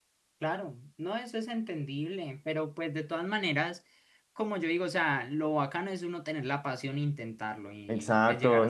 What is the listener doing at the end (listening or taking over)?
taking over